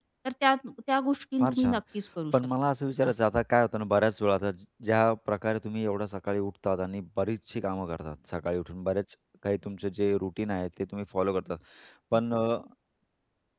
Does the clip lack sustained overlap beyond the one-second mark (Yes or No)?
Yes